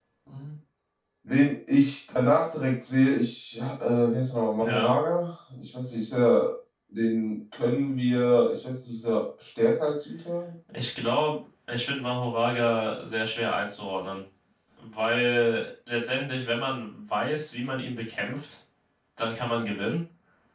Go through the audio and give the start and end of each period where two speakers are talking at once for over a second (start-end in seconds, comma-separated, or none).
none